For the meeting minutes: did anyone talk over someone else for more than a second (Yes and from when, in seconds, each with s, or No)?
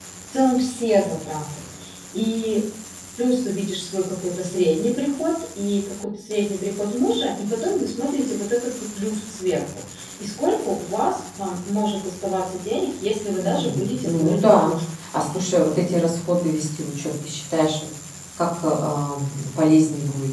Yes, from 13.4 s